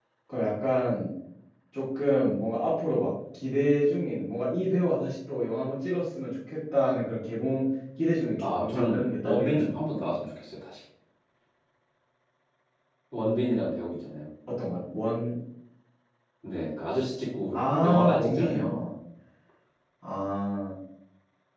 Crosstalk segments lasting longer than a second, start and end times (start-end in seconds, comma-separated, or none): 8.4-9.7, 17.5-18.8